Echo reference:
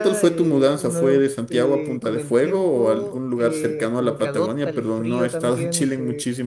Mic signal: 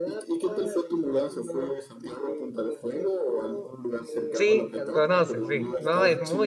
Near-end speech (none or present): present